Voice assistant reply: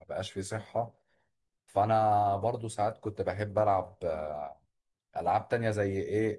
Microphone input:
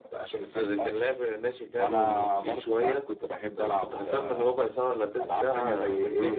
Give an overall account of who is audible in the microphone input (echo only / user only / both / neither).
both